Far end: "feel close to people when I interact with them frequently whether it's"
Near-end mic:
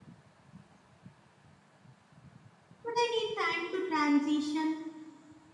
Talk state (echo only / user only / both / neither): user only